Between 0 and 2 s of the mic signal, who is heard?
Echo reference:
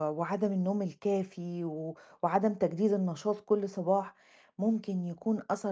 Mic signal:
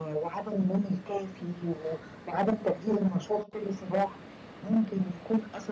echo only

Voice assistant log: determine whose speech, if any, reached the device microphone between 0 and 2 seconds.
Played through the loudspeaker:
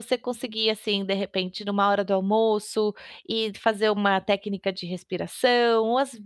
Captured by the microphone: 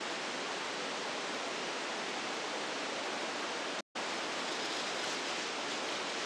neither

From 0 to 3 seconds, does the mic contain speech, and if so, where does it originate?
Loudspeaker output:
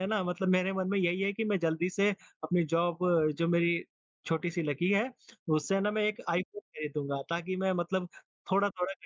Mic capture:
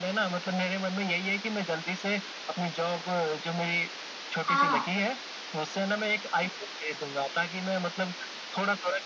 echo only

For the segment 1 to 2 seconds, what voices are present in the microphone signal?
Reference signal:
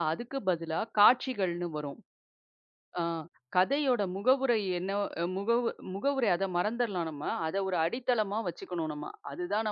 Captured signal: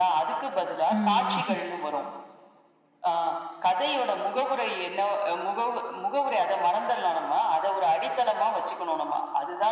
both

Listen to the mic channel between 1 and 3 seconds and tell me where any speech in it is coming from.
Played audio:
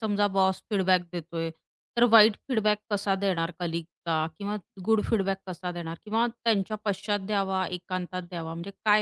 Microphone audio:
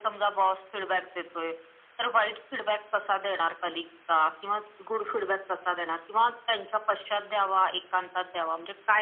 echo only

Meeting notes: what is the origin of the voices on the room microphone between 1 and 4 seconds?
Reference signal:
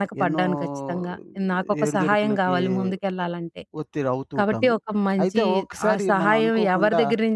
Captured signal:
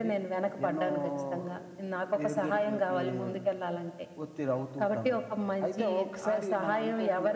echo only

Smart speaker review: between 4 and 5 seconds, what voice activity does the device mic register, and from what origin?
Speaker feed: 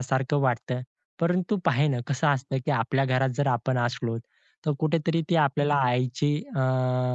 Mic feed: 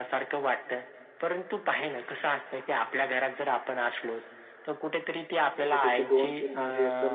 echo only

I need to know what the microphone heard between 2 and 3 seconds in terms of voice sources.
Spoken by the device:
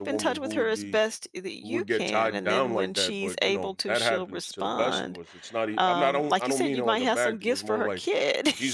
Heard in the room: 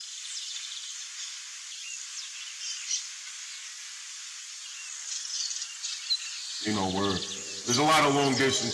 neither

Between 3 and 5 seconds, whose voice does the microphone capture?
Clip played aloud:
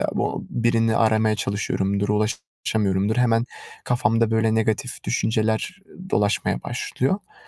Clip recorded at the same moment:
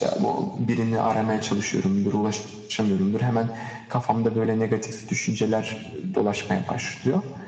echo only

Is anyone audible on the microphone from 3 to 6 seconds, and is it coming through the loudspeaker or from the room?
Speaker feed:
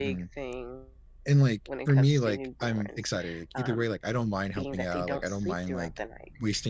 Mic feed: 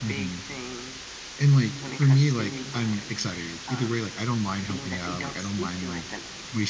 echo only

